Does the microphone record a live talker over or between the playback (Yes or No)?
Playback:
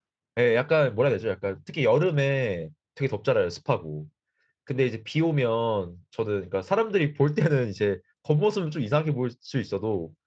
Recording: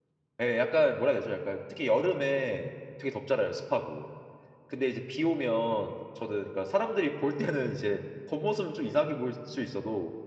No